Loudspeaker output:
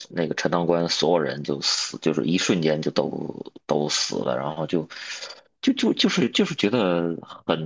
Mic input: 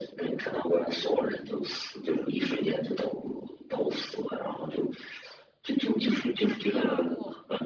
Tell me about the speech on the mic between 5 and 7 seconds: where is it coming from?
both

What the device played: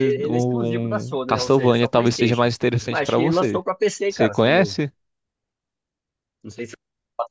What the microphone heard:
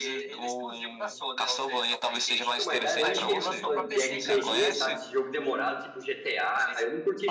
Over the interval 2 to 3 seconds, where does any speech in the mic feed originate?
both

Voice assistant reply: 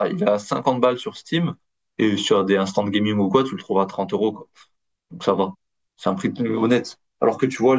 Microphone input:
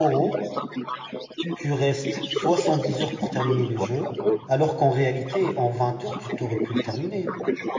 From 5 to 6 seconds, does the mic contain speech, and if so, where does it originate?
both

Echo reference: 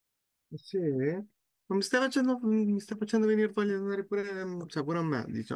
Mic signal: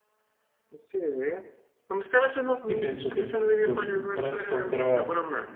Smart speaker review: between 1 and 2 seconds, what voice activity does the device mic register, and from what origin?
echo only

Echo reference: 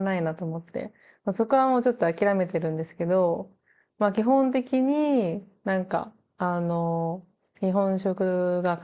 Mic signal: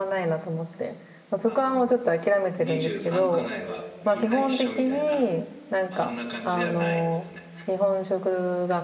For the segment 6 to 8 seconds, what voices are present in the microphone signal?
both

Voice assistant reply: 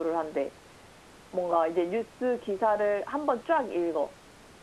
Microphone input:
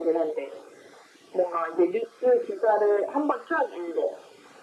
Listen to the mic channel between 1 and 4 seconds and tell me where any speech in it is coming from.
echo only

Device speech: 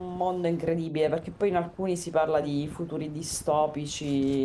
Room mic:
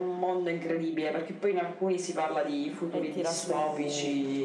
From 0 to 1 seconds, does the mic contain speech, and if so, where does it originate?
echo only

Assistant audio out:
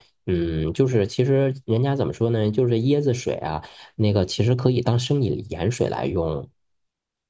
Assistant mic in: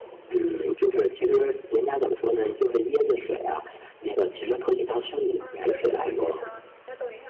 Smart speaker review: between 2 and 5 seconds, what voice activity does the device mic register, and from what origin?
echo only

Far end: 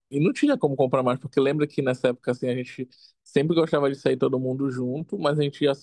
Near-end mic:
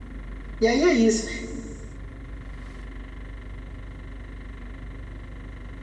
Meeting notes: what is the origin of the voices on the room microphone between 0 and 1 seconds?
user only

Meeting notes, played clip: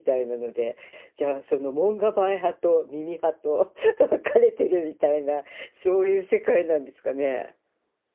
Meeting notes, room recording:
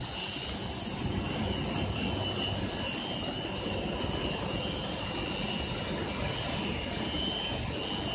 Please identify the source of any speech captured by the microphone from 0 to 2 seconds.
neither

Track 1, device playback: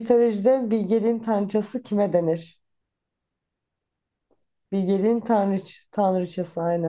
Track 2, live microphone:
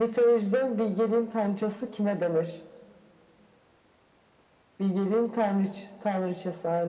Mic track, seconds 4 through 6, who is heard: echo only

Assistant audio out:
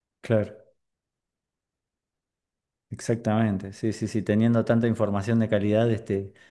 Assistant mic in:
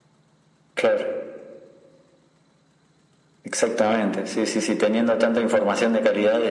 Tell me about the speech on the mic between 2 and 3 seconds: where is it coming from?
neither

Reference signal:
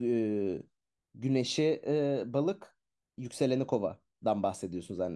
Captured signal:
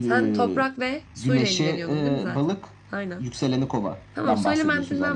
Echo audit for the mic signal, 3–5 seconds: both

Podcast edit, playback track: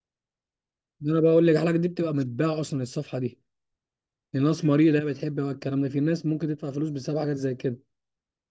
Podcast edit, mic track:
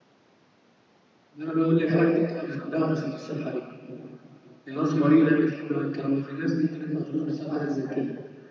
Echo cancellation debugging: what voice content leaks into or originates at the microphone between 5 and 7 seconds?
echo only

